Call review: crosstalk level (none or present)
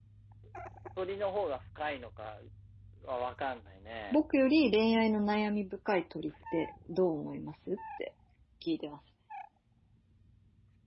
none